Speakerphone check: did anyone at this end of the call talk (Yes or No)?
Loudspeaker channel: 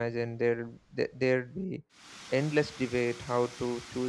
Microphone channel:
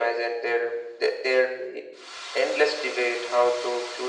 No